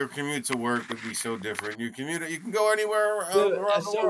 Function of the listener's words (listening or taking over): taking over